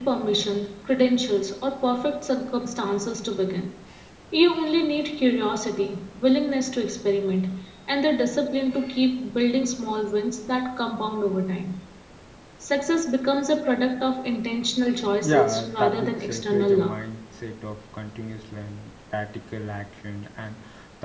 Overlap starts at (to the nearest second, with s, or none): 15 s